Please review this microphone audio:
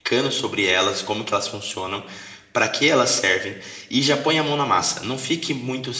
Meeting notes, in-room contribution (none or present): present